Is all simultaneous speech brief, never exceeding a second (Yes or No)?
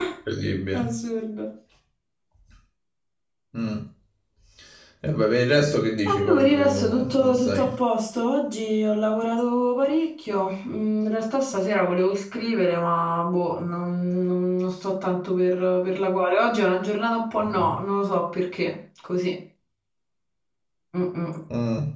No